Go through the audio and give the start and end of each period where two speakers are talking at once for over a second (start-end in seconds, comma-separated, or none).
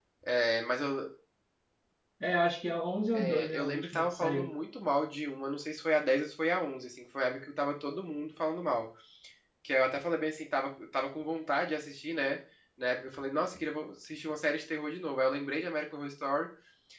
3.1-4.5